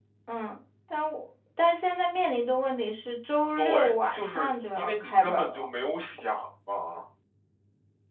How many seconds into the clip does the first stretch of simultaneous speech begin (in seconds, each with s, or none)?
3.6 s